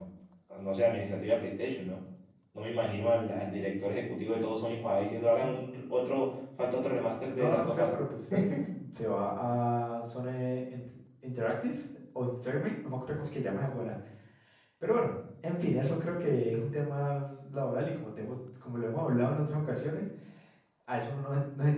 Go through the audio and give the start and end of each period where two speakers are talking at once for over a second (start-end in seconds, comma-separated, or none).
none